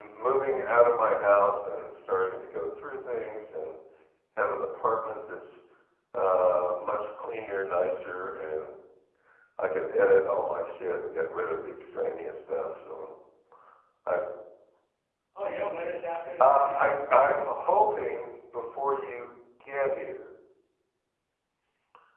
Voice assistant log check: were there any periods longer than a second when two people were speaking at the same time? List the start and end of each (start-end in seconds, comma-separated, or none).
16.4-17.7